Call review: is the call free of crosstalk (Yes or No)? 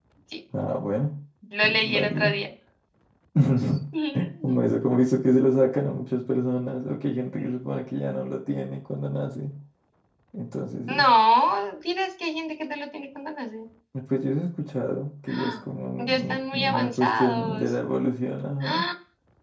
No